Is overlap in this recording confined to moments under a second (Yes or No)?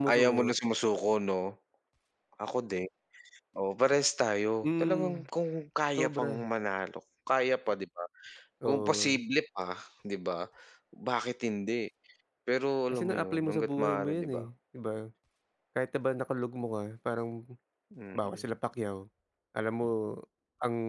No